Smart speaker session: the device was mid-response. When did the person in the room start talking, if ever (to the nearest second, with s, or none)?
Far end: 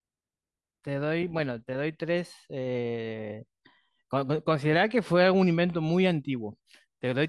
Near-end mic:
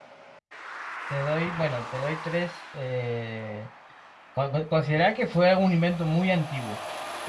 none